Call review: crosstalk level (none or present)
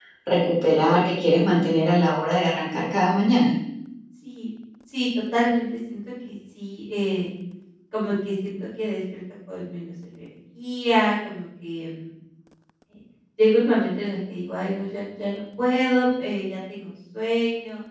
none